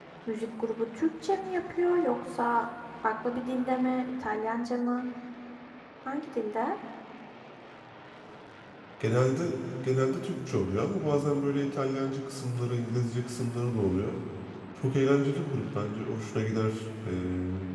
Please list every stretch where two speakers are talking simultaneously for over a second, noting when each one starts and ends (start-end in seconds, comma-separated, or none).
none